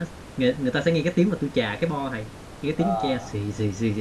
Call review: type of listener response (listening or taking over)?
listening